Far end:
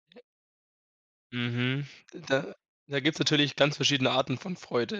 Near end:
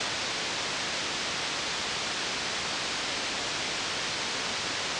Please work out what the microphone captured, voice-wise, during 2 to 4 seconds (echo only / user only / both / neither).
neither